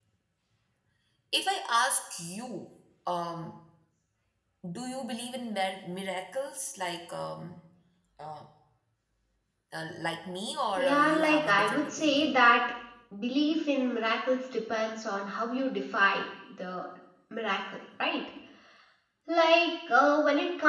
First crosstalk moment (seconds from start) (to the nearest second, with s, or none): 11 s